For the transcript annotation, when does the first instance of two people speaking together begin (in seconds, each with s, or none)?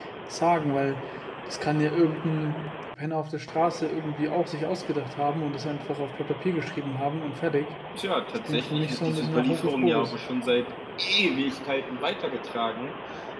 8.5 s